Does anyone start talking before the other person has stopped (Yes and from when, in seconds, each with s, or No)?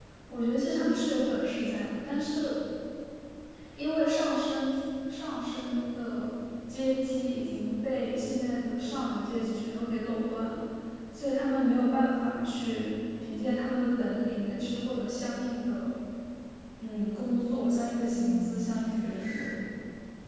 Yes, from 18.1 s